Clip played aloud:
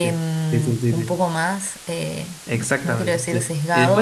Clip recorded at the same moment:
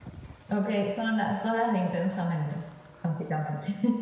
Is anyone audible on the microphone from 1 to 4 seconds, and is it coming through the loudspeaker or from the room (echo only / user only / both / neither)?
user only